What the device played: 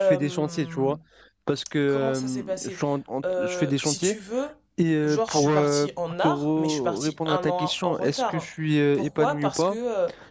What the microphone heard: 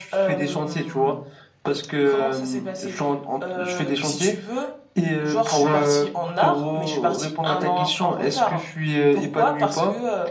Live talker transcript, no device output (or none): none